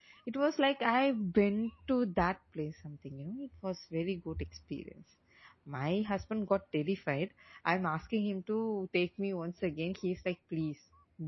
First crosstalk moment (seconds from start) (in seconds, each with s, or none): none